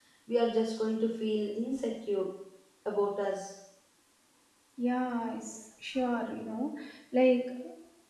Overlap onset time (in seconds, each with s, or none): none